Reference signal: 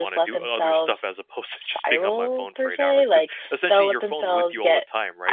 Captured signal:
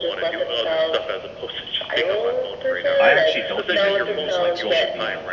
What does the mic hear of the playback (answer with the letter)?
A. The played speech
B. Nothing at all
A